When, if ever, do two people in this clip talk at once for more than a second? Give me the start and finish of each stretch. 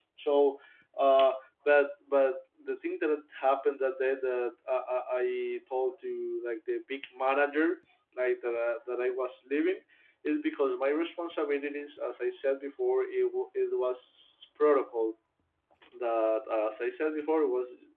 none

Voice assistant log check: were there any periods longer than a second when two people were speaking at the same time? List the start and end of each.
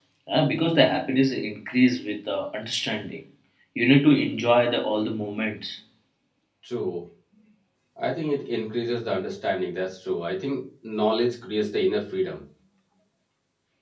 none

